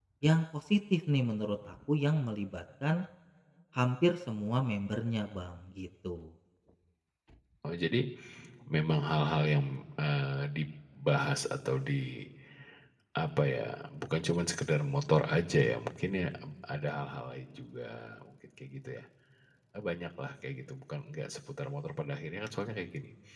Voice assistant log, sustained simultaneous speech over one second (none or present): none